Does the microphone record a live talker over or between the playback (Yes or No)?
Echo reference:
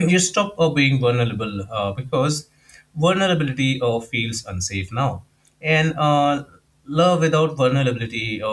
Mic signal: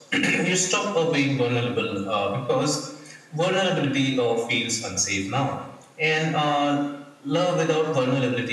No